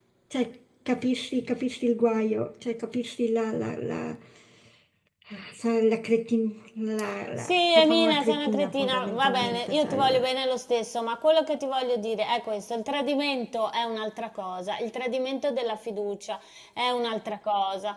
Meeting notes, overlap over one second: present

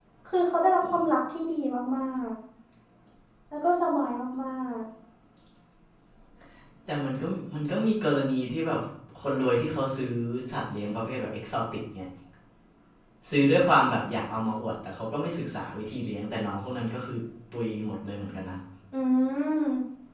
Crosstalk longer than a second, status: none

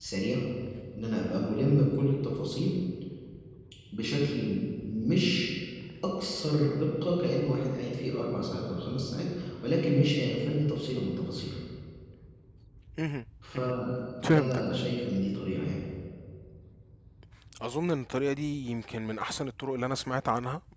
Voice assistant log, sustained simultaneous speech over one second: none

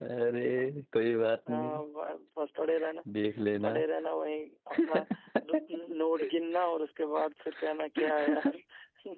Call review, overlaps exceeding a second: none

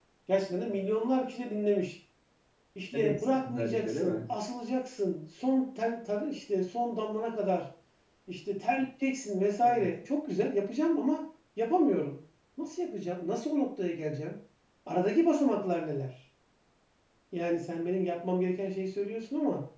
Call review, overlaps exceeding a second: present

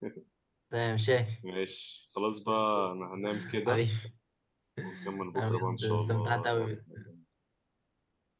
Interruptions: present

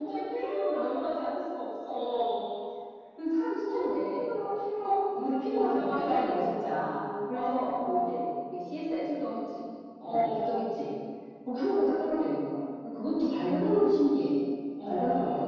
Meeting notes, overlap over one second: present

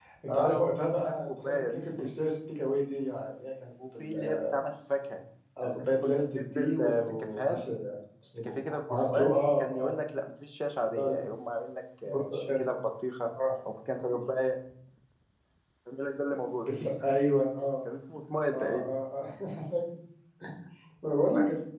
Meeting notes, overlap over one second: present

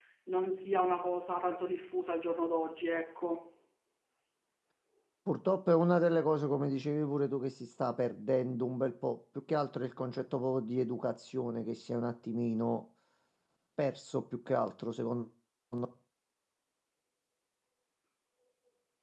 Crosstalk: none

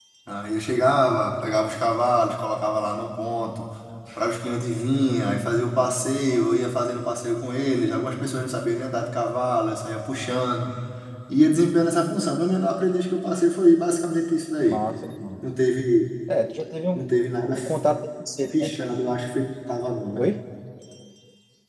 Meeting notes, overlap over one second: none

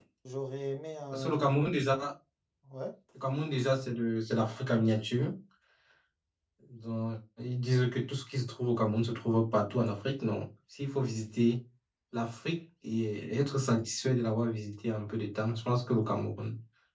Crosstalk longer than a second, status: none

